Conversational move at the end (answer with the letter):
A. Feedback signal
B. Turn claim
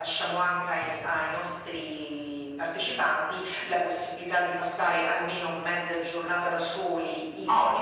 B